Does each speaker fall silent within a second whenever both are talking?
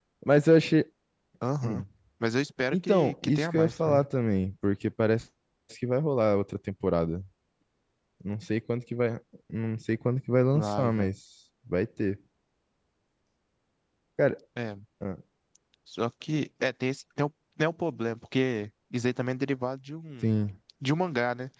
No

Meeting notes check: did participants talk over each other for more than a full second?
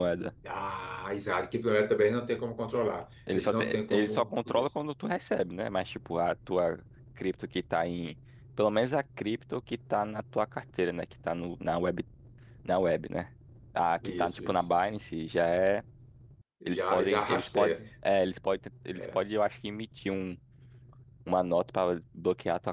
Yes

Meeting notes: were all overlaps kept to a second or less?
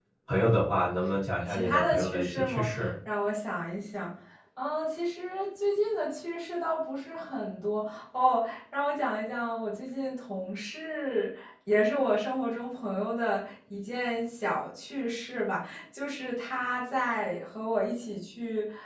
No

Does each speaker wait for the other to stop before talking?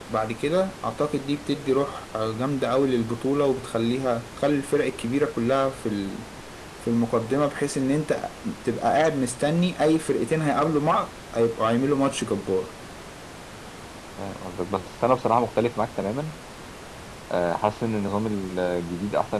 Yes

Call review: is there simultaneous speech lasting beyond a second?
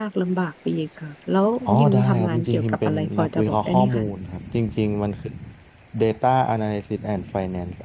Yes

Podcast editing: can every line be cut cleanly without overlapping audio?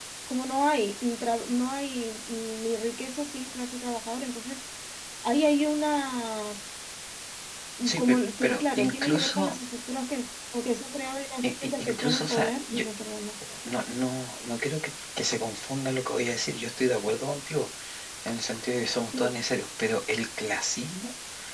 No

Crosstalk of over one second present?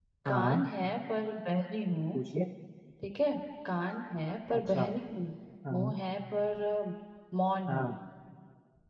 No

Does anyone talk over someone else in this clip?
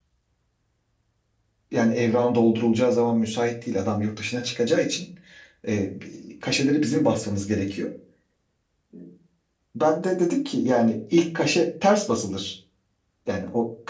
No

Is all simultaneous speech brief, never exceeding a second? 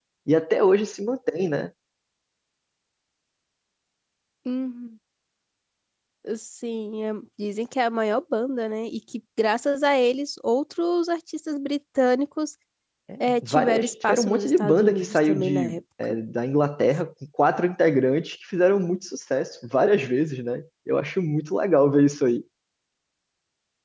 No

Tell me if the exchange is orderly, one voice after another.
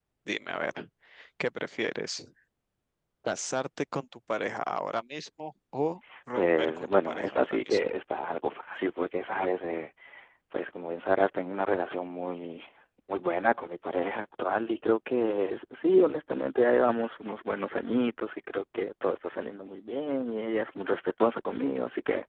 No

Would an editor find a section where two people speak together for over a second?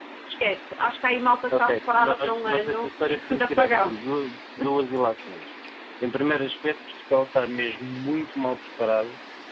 Yes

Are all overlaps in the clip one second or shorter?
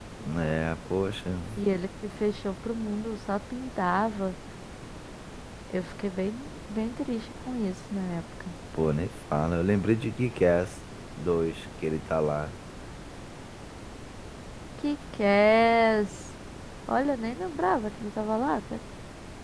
Yes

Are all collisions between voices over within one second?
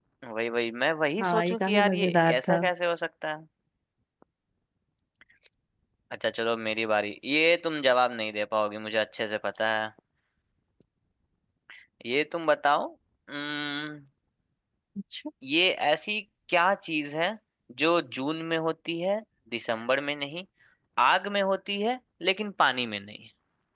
No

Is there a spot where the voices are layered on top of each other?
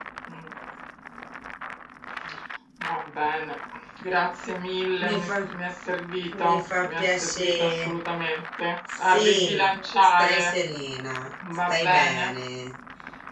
Yes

